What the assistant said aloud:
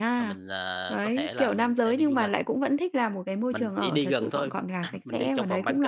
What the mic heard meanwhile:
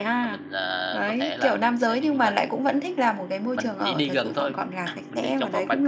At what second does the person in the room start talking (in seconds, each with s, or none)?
none